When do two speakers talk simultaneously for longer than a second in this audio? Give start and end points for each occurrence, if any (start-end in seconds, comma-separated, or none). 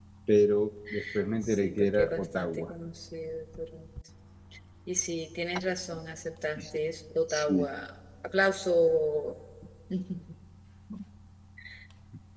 1.5-2.7